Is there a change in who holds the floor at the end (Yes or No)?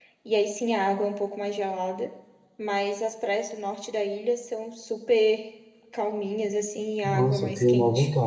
Yes